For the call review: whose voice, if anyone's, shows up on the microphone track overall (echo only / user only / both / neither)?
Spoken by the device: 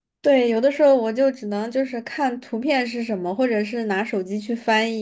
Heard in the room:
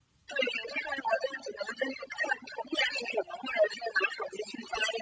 echo only